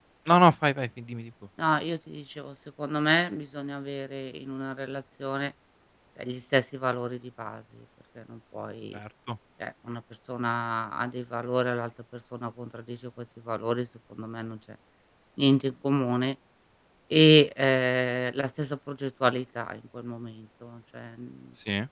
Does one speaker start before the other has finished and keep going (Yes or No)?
No